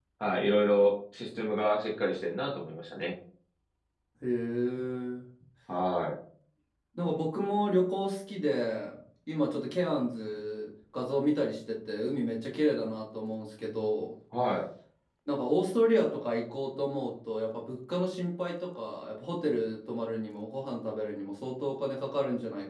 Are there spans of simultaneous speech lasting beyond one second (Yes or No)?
No